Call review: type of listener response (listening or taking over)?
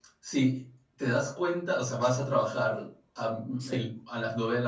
listening